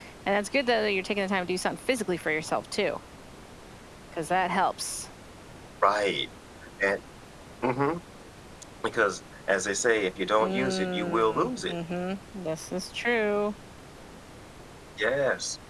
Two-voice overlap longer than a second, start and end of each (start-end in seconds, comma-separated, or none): 10.4-11.8